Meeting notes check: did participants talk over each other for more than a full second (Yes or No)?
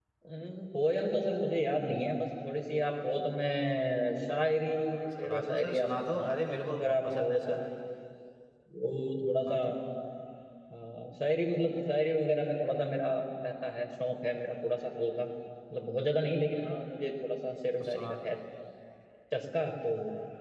Yes